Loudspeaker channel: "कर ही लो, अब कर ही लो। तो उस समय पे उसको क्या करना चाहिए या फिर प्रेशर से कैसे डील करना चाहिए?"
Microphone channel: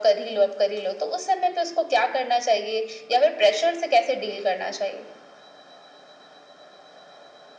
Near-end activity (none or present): none